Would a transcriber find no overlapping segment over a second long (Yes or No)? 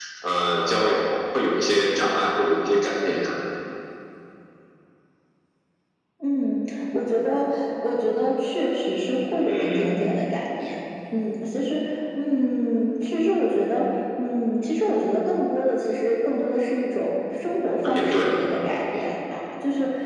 Yes